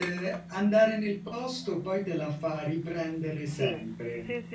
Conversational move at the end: taking over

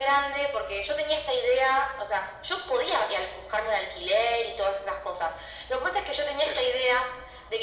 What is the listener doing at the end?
listening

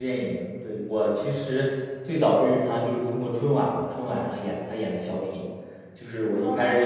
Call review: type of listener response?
listening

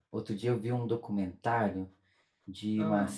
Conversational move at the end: listening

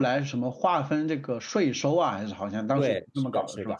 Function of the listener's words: taking over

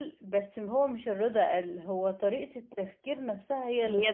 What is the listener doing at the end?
taking over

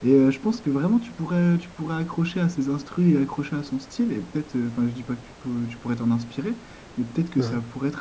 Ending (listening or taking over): listening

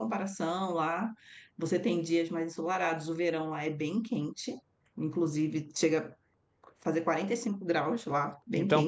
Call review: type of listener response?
taking over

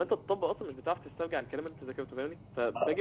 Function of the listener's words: listening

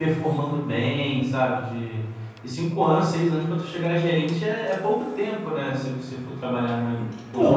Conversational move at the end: taking over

